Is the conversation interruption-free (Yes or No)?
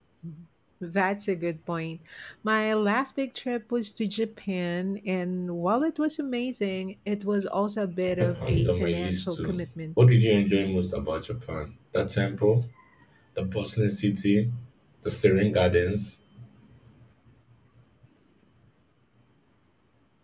No